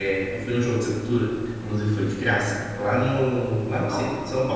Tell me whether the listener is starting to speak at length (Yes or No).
No